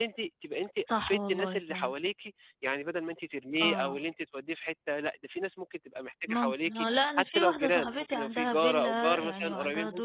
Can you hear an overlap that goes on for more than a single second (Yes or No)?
Yes